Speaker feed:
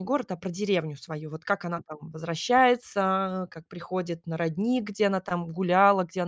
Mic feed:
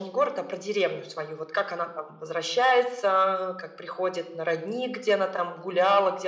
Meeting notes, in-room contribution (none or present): none